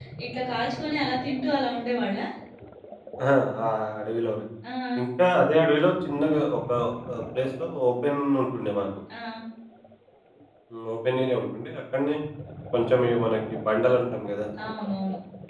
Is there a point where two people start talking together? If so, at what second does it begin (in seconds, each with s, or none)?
none